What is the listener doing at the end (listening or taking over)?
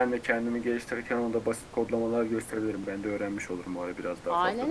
taking over